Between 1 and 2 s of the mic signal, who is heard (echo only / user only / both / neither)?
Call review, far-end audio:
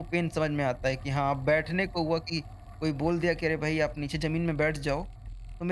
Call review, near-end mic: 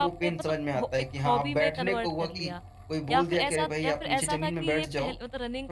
both